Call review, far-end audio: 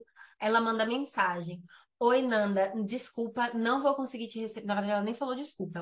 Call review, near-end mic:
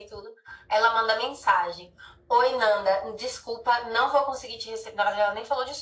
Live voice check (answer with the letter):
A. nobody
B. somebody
A